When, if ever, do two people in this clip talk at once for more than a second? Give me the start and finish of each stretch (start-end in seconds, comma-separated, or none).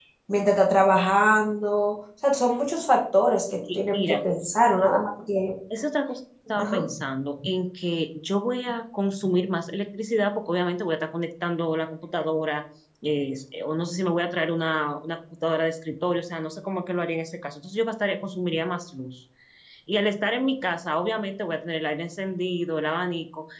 none